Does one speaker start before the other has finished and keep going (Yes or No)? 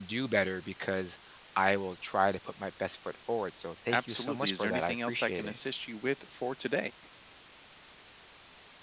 Yes